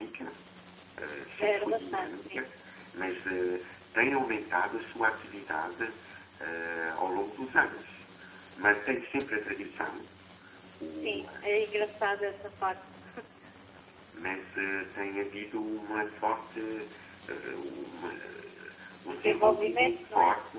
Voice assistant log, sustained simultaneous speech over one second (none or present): present